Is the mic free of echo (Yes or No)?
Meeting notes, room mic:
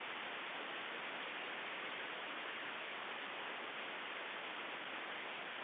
Yes